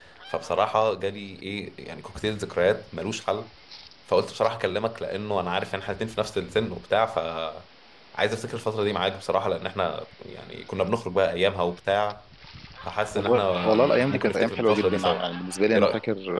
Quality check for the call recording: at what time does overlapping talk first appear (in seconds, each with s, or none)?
13.2 s